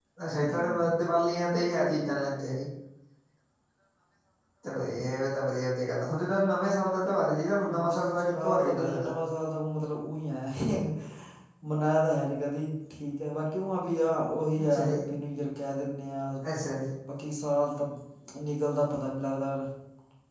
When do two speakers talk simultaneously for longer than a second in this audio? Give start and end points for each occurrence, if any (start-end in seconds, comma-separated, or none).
7.9-9.1